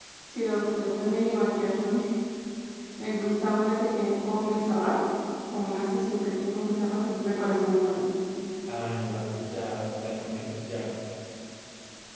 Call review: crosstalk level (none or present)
none